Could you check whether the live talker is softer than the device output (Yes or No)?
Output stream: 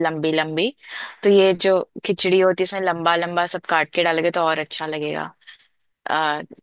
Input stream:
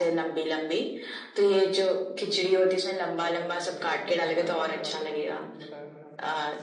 Yes